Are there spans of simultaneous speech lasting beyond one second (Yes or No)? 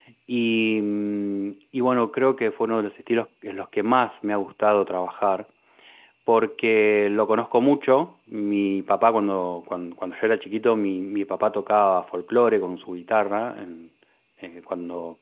No